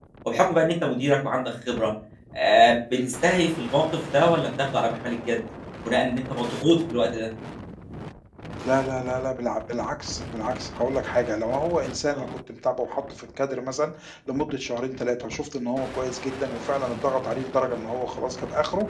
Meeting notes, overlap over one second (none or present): none